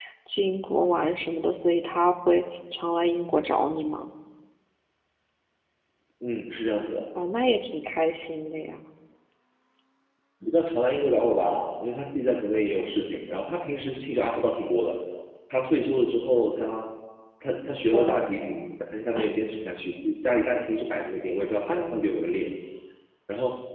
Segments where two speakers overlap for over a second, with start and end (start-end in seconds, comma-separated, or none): none